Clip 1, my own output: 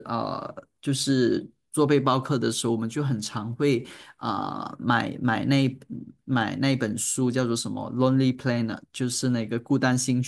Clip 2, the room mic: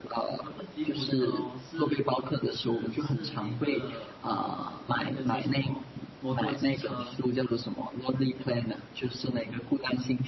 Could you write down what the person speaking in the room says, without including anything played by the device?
“不是吉普车哦，是是是那个呃那个叫什么摩托机车？

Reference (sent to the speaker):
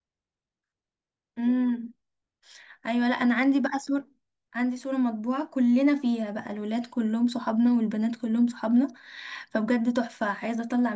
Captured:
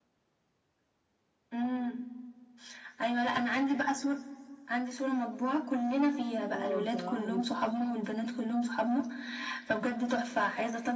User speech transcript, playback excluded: اه بصراحه جدا

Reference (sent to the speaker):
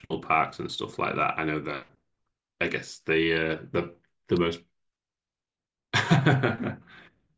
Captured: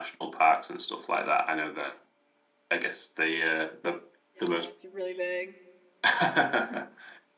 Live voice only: Yeah. It's really big.

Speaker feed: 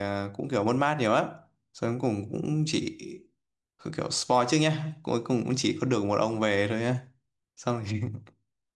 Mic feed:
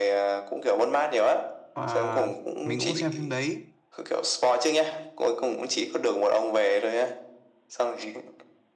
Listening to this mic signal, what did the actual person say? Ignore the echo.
à, mình cũng xem phim đấy

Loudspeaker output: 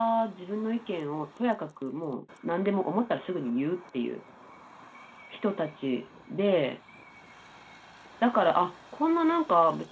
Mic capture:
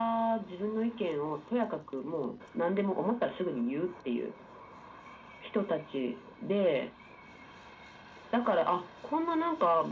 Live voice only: none

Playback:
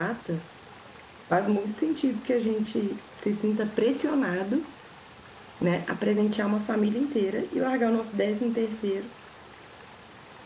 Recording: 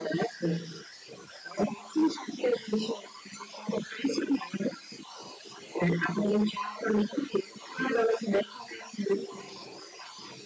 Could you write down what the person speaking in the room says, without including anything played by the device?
none

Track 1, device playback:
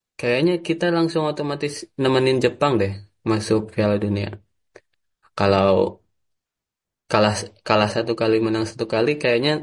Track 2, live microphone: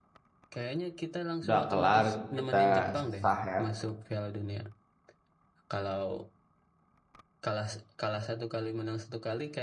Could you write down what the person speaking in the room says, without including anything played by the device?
udah kelar kita sah ya.

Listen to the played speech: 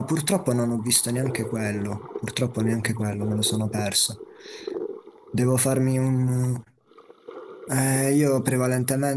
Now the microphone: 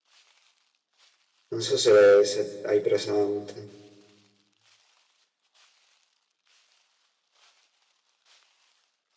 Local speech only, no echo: Non so se, se hai presente.

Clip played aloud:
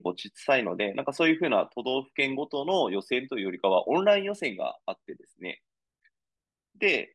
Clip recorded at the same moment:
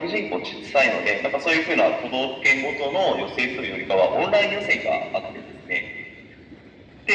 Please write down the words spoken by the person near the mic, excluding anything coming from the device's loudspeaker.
none

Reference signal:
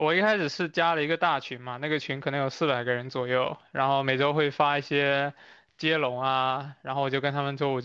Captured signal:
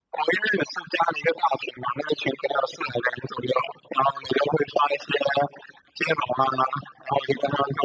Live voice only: none

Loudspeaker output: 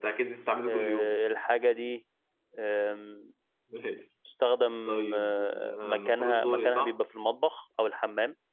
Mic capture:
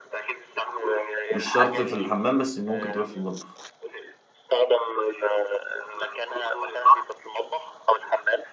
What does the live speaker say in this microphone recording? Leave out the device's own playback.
مش شرط في الحمام بس ممكن تبقى في المطبخ

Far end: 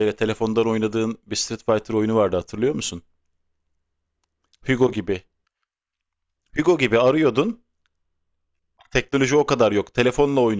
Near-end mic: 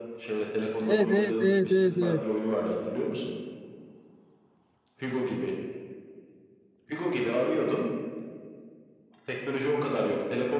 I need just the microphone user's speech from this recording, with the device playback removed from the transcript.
evet, evet, evet, evet, evet.

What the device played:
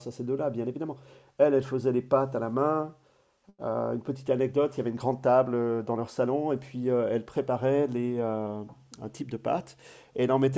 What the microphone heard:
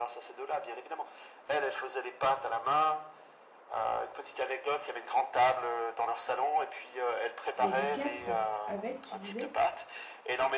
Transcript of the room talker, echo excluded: Il y a du capre avec, tu disais?

